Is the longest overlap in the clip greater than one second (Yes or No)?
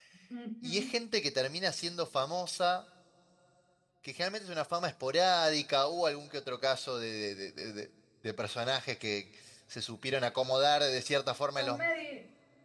No